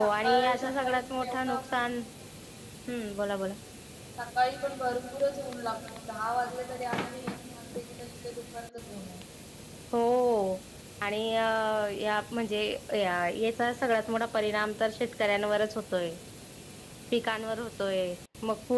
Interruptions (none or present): present